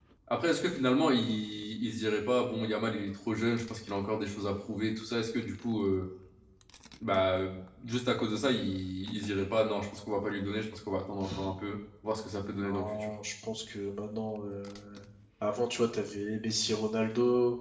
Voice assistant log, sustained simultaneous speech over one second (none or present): none